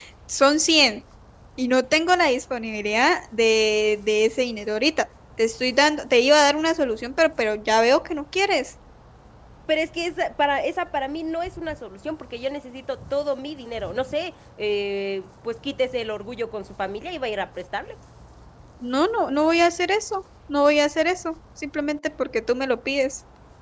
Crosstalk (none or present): none